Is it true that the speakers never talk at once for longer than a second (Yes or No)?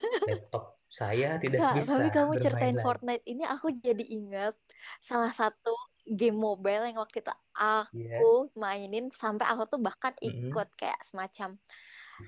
No